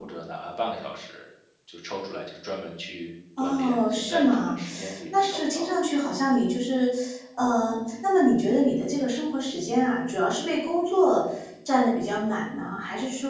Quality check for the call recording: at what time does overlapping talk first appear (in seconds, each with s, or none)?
3.4 s